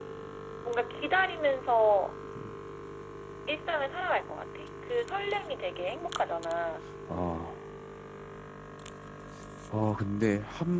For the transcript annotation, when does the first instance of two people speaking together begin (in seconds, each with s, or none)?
none